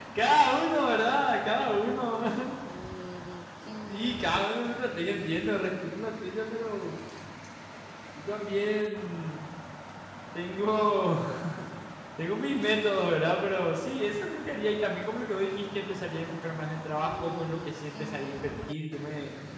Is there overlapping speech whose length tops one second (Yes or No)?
No